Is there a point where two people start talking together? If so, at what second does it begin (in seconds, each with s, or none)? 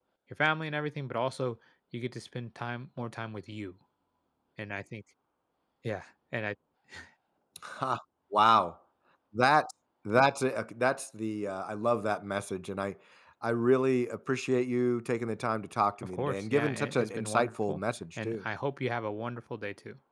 16.0 s